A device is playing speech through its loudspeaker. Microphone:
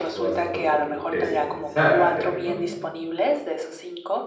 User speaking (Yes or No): Yes